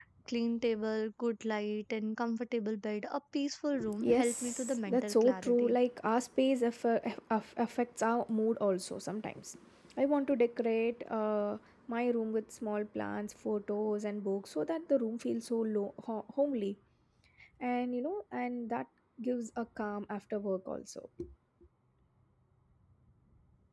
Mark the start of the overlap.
4 s

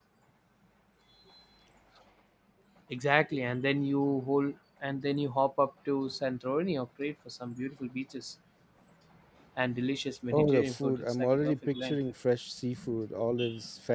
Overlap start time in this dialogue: 10 s

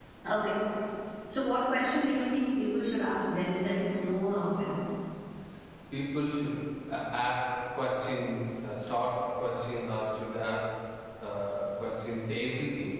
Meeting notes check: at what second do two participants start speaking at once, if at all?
none

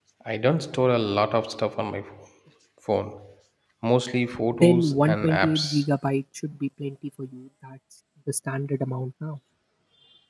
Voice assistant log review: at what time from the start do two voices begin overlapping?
5 s

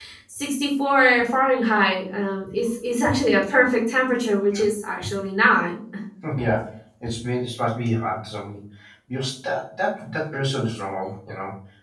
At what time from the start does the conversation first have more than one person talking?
none

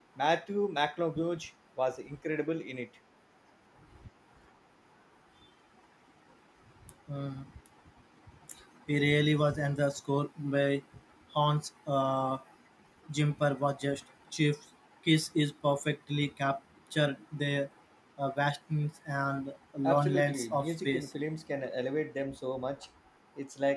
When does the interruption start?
20 s

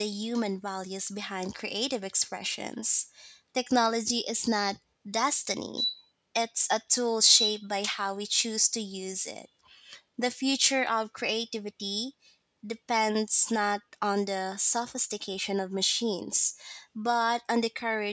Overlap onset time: none

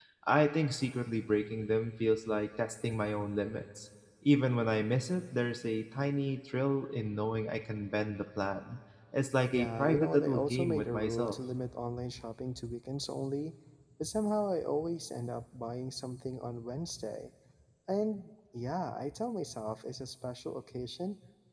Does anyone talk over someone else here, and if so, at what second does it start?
10 s

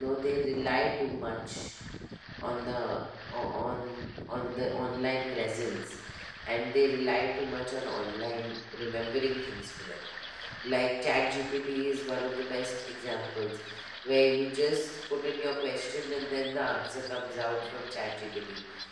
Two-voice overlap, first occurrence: none

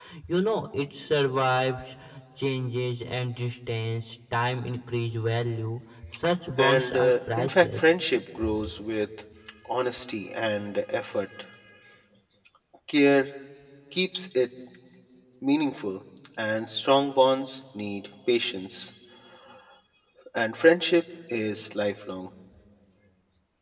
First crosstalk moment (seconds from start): 7 s

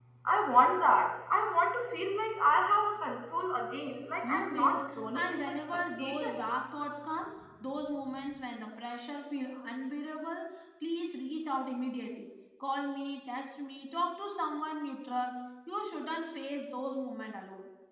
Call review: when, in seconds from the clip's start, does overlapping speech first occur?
4 s

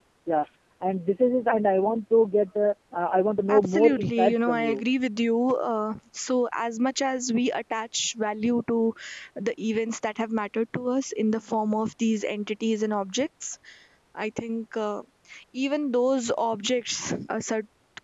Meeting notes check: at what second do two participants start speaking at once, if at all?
3 s

